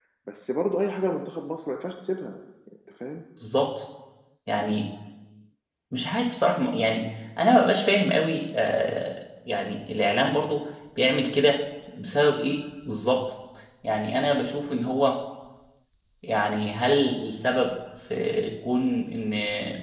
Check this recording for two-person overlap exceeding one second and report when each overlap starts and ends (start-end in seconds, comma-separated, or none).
none